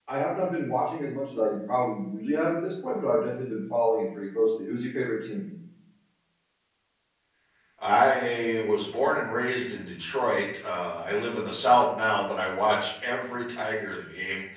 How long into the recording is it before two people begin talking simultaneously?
none

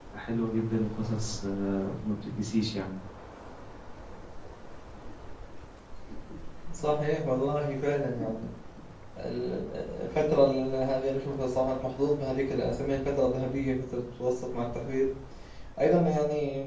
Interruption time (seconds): none

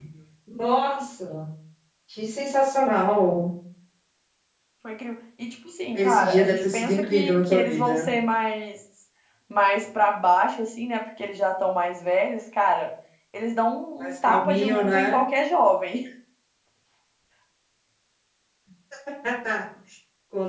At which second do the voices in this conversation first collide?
6.0 s

